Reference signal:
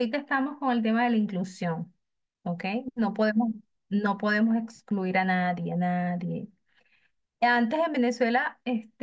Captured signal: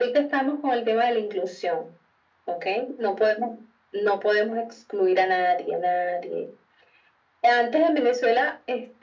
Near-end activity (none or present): none